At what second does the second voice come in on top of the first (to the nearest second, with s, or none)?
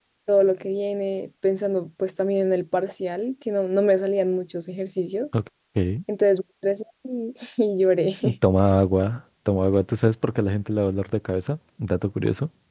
none